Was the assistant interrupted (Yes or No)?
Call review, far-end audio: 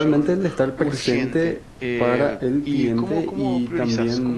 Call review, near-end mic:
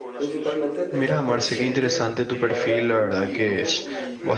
Yes